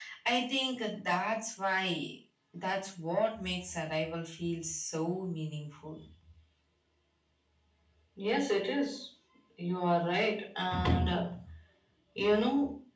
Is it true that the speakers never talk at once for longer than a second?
Yes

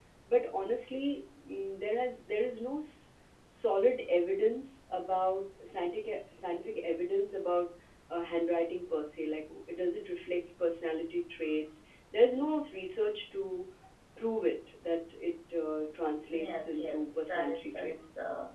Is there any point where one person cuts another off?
Yes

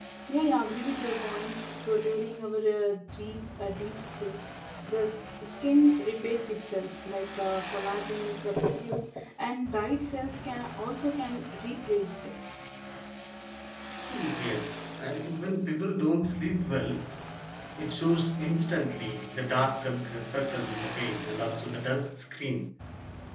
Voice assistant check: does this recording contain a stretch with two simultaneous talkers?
No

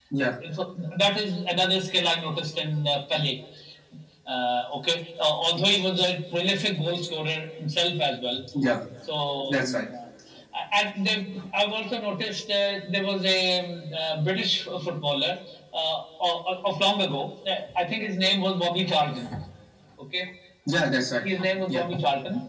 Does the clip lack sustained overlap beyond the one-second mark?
Yes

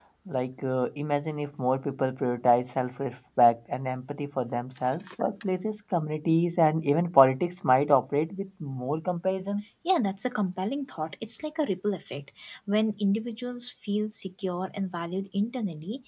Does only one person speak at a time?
Yes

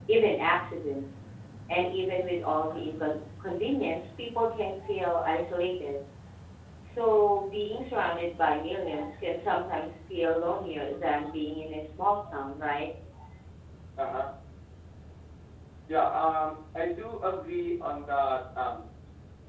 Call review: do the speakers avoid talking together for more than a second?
Yes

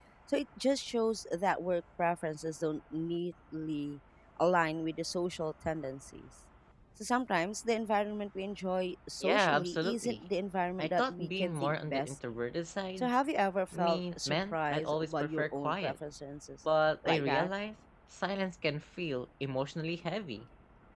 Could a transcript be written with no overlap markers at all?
No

